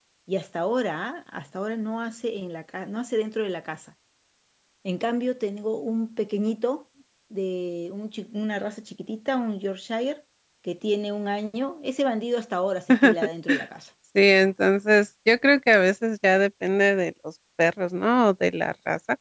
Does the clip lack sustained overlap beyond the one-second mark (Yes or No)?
Yes